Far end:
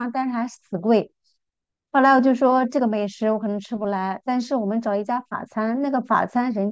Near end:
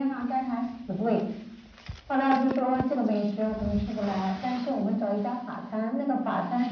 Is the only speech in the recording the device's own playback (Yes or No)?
Yes